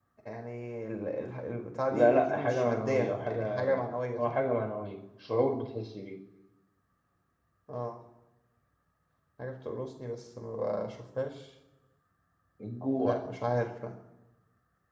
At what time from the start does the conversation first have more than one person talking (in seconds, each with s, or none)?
1.9 s